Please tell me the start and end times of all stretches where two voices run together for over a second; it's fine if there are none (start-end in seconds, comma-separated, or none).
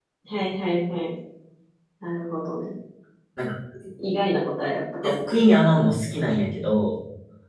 none